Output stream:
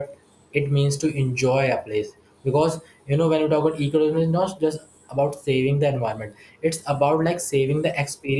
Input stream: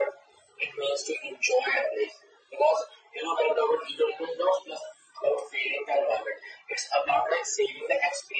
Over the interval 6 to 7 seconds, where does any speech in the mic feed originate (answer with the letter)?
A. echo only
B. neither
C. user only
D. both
A